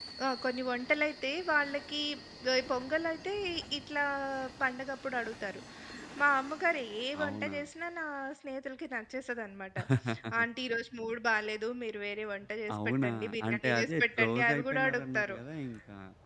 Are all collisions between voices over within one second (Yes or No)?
No